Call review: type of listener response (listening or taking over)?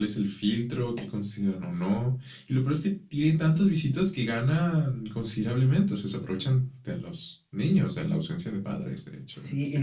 taking over